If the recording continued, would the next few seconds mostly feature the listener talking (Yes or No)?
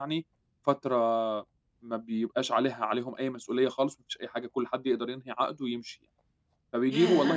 No